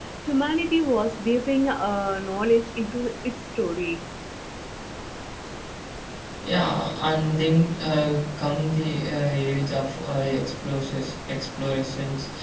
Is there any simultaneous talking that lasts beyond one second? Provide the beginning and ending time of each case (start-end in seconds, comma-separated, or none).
none